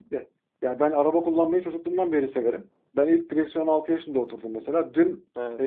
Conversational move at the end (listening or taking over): listening